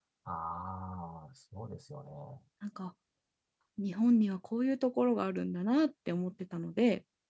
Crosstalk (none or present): none